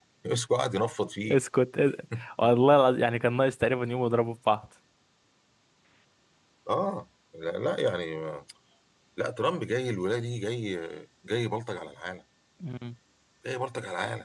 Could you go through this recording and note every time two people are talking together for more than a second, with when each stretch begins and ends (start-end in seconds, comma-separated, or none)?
none